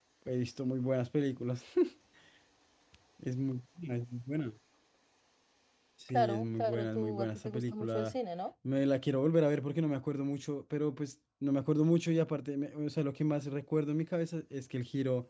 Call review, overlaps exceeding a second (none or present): present